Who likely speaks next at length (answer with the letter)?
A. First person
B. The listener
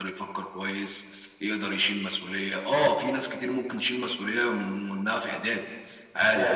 A